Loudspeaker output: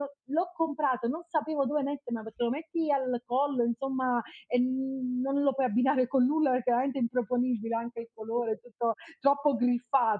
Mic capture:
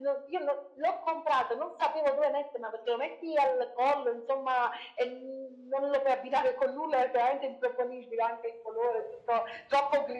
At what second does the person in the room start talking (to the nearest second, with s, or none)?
none